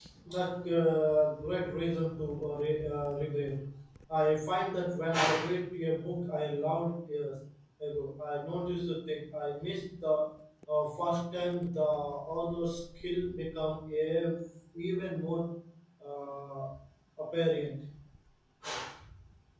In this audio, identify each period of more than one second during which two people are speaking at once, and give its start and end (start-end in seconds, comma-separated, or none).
none